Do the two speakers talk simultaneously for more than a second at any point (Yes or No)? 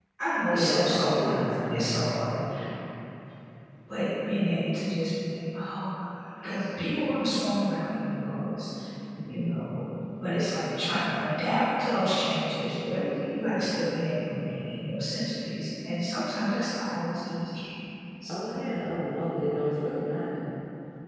Yes